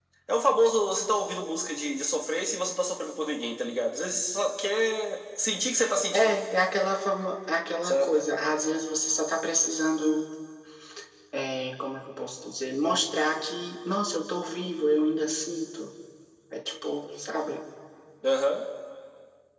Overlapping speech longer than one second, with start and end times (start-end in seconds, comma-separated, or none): none